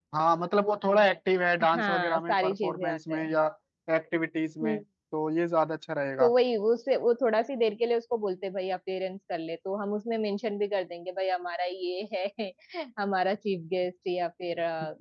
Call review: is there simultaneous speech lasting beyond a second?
Yes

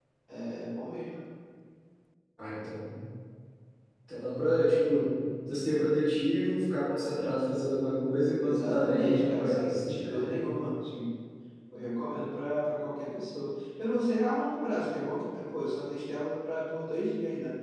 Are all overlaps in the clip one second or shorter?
No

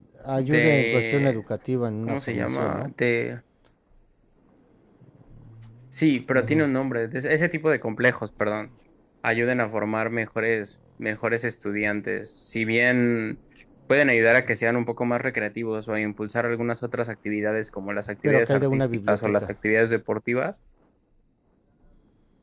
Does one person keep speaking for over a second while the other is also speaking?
Yes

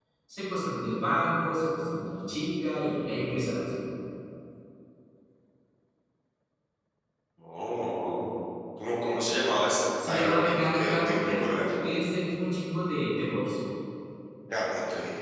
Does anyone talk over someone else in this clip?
Yes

